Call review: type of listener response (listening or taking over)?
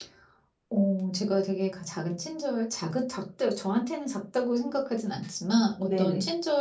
listening